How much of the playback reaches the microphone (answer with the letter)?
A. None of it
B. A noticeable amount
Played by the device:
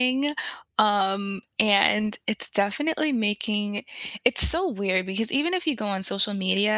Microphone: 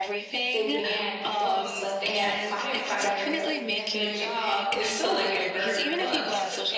B